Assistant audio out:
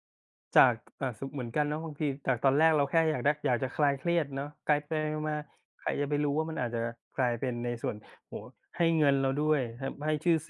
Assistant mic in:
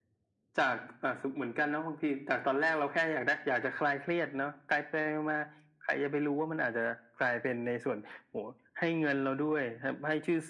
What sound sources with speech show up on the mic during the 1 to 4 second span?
echo only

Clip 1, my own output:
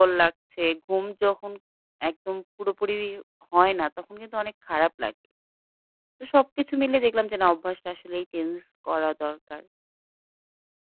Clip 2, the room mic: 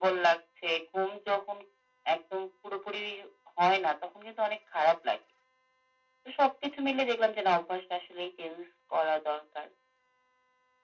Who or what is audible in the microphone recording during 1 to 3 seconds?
echo only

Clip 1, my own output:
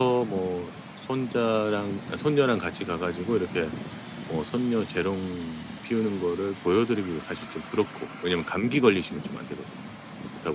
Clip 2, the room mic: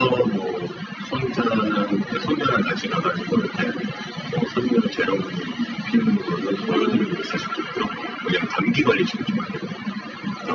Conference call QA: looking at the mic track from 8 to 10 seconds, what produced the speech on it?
echo only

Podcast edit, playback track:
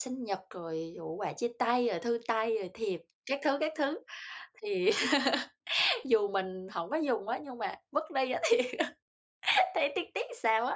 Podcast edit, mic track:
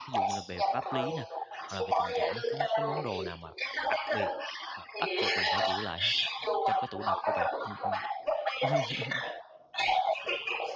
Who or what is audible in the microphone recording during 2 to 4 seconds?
both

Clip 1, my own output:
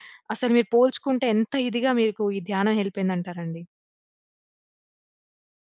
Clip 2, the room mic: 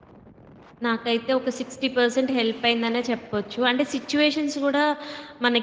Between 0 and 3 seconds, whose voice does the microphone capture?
user only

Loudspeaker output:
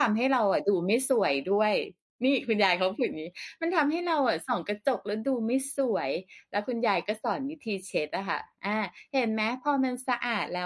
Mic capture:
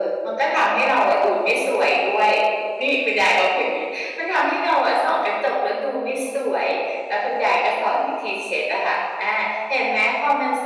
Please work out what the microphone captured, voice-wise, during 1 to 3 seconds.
echo only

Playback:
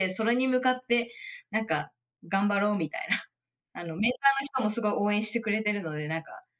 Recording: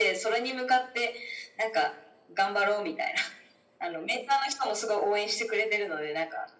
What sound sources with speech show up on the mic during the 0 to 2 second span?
echo only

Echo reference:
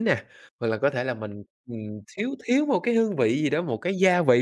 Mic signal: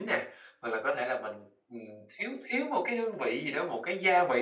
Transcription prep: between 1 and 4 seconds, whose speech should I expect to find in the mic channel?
echo only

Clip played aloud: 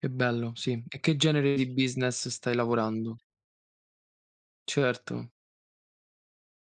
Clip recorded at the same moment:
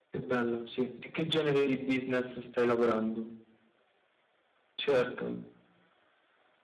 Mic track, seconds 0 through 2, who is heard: echo only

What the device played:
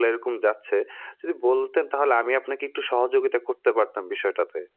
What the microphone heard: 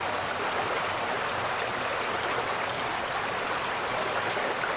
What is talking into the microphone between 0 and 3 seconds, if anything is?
neither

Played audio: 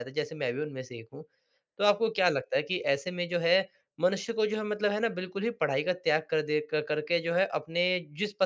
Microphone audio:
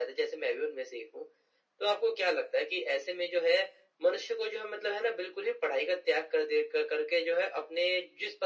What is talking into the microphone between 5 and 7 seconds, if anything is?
echo only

